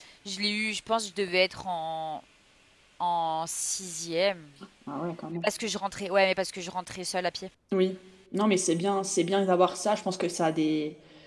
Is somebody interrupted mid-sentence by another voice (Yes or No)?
No